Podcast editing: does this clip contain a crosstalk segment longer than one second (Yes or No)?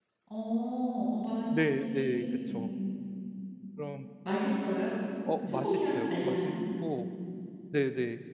Yes